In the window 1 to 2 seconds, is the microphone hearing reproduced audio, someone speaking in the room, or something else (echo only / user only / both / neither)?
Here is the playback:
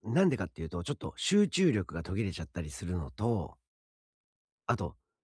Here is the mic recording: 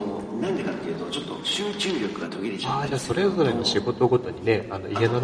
echo only